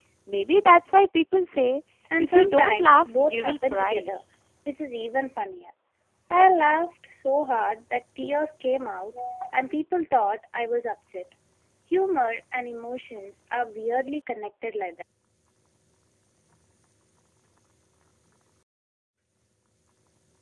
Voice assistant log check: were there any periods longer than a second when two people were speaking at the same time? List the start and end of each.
2.2-4.1

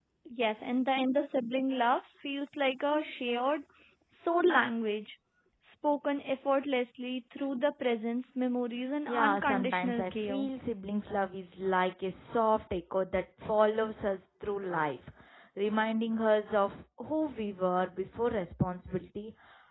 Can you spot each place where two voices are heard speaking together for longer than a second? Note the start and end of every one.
9.1-10.4

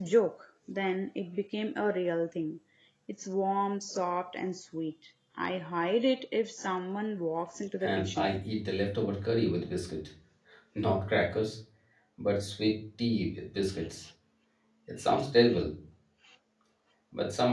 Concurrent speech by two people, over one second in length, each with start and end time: none

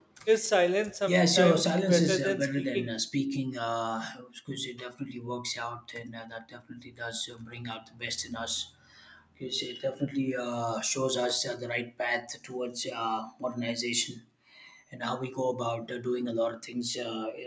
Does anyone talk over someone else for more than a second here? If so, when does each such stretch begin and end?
1.1-2.9

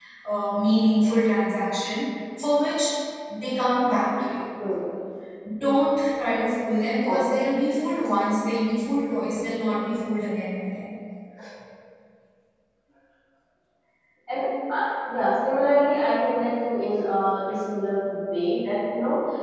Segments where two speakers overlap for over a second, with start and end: none

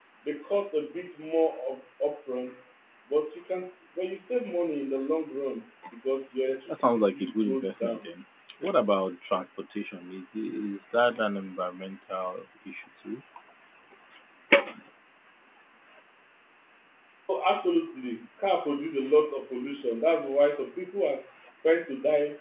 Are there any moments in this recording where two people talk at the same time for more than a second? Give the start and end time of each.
6.7-8.1

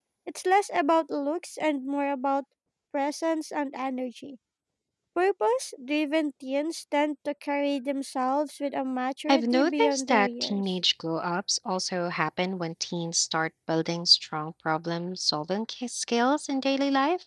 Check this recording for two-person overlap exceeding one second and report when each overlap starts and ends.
9.3-10.6

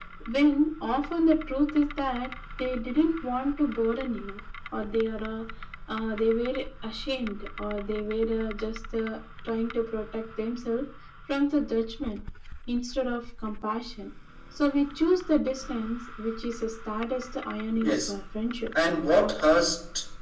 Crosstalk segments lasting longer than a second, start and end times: none

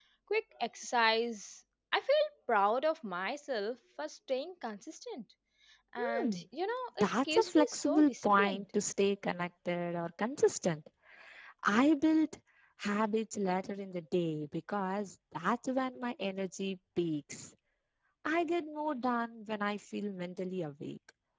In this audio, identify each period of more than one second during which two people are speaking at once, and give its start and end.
7.0-8.6

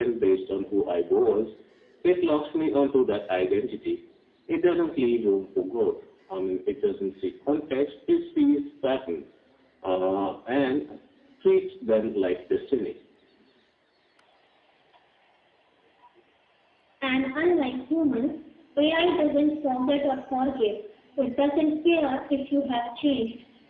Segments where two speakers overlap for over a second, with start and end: none

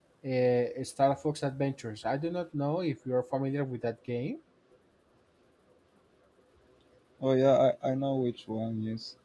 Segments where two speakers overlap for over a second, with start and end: none

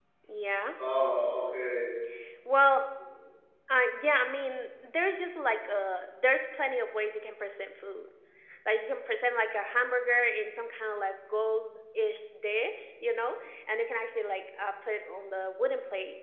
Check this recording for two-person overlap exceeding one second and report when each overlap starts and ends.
none

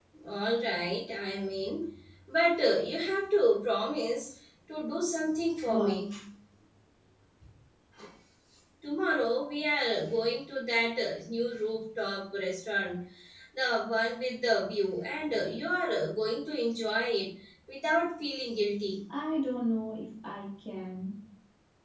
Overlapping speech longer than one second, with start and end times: none

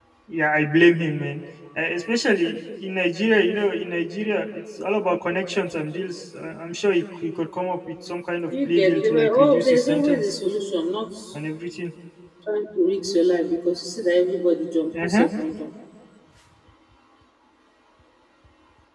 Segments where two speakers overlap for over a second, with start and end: 8.7-10.3

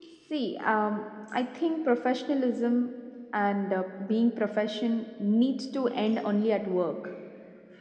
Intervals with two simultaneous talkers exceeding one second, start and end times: none

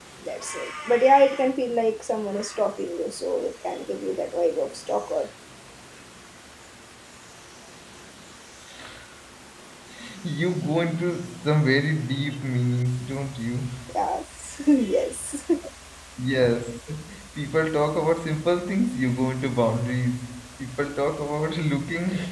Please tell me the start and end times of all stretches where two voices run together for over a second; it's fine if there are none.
none

